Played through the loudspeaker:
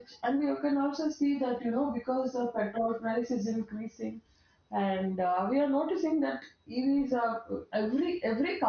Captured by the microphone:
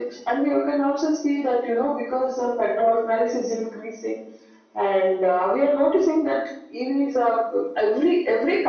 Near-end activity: none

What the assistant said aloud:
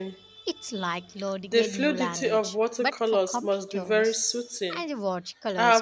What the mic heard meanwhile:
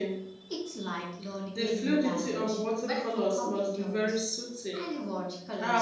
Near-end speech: none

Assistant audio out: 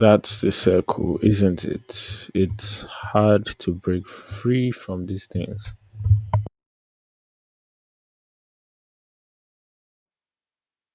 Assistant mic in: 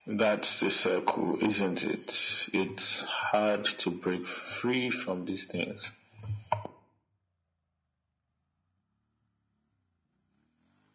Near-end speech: none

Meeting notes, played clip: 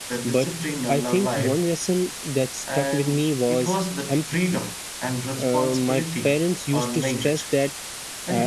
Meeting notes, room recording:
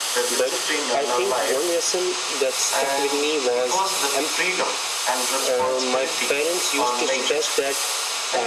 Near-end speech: none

